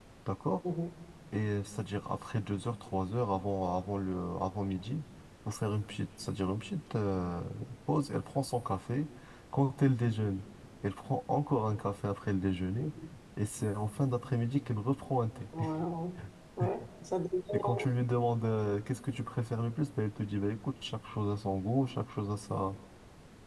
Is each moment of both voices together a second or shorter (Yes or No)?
Yes